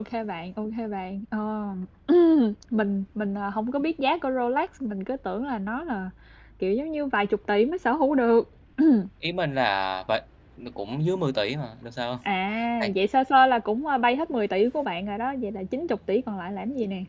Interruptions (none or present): none